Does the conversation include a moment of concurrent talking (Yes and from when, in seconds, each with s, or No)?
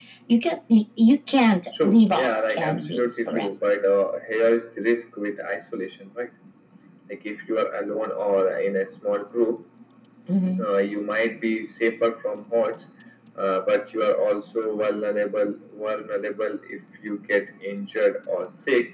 Yes, from 1.7 s